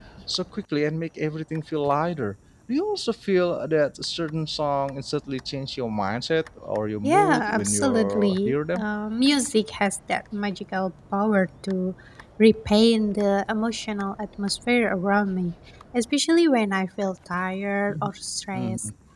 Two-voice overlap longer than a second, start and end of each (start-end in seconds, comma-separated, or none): 7.0-8.8